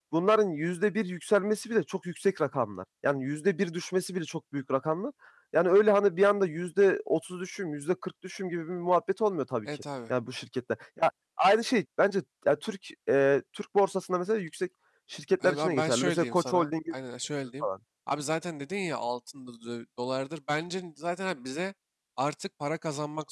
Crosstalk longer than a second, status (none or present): present